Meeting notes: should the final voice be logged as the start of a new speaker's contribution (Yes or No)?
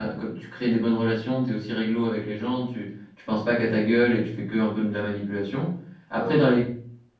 No